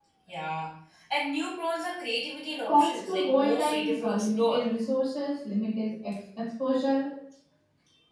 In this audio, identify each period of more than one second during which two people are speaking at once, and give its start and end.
2.7-4.6

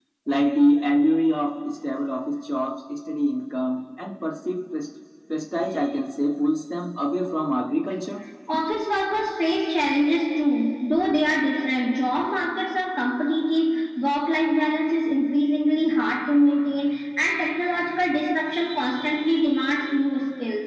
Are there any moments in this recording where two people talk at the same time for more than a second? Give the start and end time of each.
none

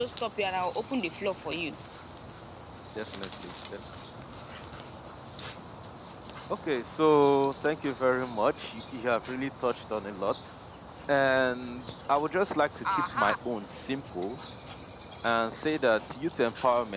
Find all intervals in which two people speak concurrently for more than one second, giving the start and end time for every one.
none

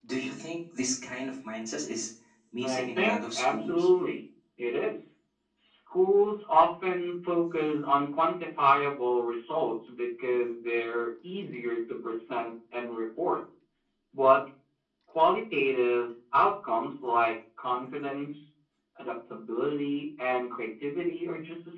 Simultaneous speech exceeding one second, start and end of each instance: 2.6-3.9

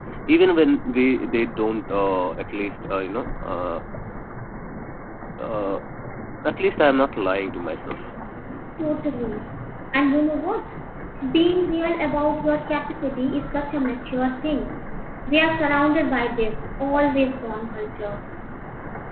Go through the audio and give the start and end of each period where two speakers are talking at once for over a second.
none

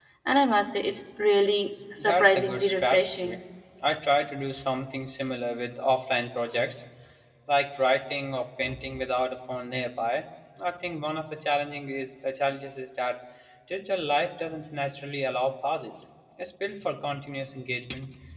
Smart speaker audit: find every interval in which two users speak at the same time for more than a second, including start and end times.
1.9-3.4

